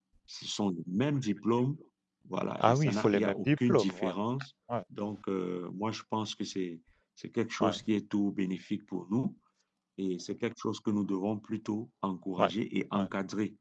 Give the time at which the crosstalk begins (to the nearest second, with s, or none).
3 s